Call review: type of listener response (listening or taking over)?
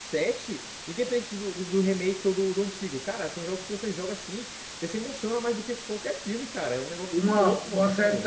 taking over